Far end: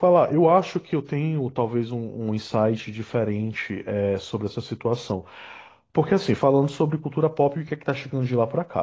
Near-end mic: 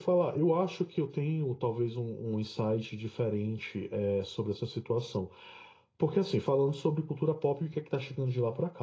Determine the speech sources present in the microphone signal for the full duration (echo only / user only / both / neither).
echo only